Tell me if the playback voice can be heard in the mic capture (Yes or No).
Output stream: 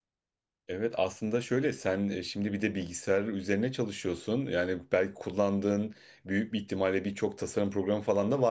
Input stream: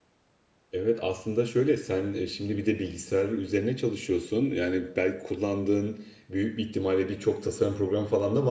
Yes